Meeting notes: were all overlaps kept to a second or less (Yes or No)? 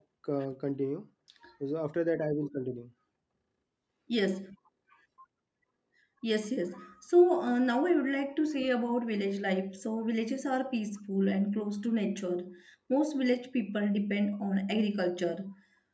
Yes